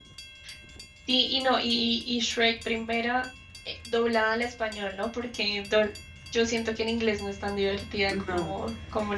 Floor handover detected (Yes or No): No